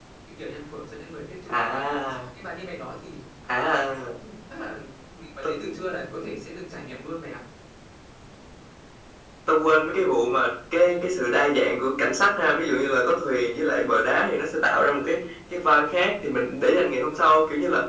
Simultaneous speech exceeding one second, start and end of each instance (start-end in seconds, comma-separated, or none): none